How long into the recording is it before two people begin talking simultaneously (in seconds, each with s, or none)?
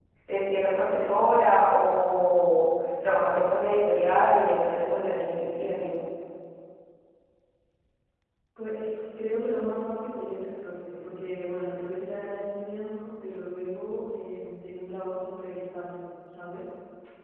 none